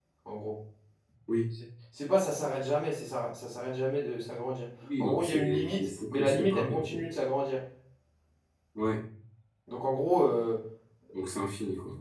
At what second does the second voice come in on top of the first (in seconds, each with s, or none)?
4.8 s